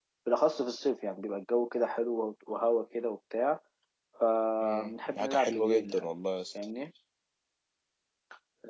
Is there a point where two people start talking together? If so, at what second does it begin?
4.6 s

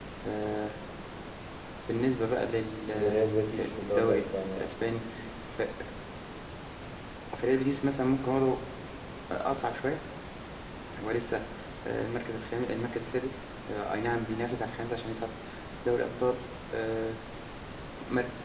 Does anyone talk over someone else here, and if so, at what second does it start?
2.8 s

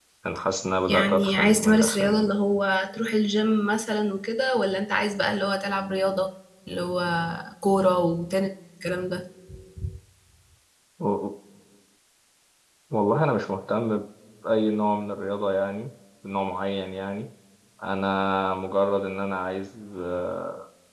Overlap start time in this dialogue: 0.9 s

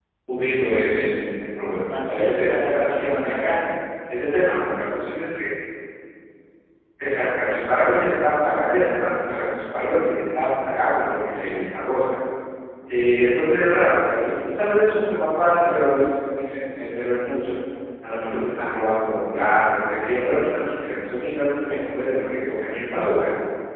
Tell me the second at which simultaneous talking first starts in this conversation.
1.9 s

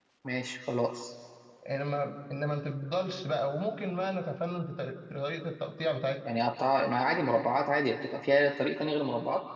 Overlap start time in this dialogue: none

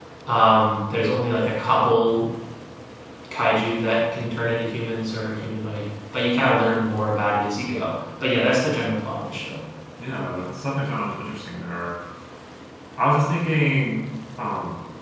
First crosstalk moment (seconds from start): none

